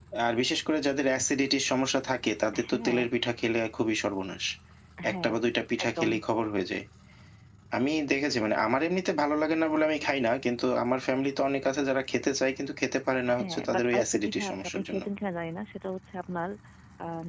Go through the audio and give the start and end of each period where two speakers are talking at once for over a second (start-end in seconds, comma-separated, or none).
13.4-15.0